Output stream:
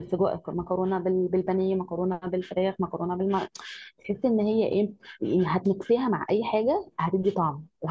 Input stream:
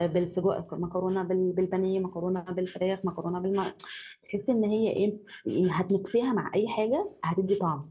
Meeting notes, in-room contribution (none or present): none